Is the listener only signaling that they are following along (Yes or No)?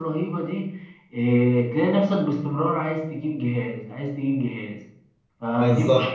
No